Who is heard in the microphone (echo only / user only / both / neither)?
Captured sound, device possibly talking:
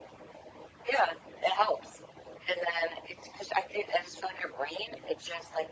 echo only